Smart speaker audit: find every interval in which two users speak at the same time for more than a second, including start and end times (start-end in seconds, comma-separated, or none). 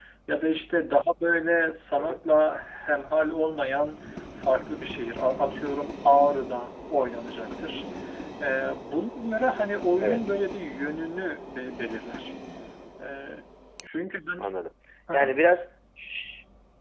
none